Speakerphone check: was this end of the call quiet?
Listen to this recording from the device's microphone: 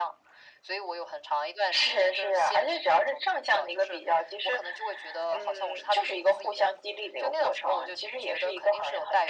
Yes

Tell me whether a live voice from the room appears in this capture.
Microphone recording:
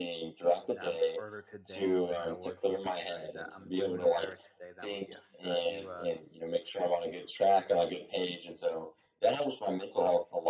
Yes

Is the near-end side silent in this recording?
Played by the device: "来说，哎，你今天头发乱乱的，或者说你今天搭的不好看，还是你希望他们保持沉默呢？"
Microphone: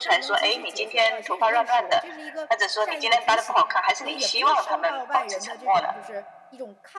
No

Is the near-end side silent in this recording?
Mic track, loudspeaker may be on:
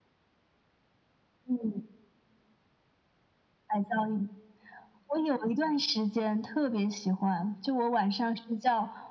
Yes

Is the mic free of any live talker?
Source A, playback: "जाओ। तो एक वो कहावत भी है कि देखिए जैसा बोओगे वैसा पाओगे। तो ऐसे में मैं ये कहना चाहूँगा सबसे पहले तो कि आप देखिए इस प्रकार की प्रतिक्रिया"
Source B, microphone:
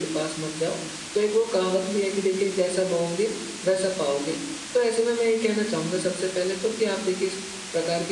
Yes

